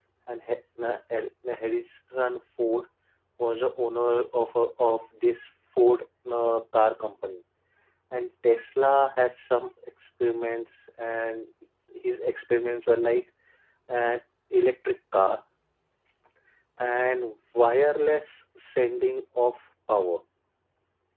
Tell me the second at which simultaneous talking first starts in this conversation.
none

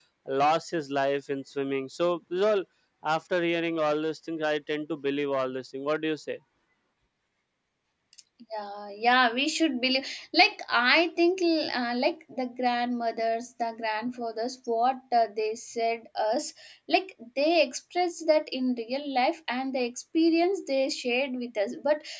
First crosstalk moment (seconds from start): none

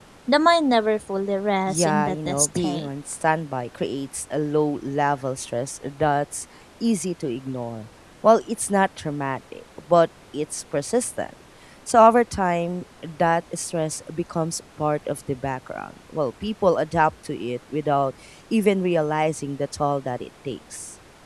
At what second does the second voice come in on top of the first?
1.7 s

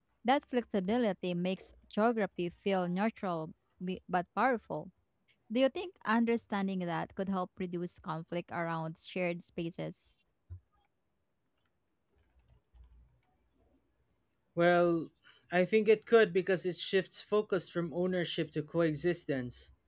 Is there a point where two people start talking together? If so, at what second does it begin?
none

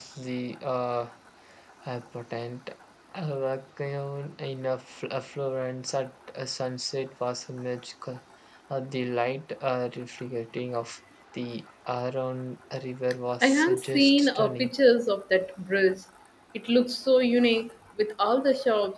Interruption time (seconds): 13.4 s

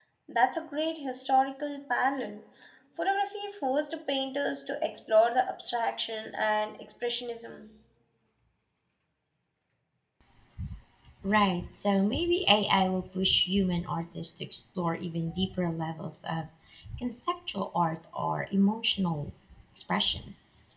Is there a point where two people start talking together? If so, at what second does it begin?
none

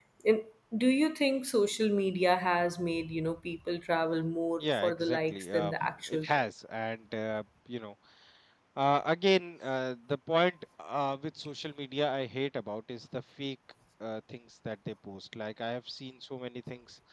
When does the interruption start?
4.6 s

